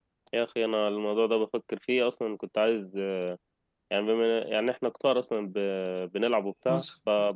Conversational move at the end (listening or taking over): listening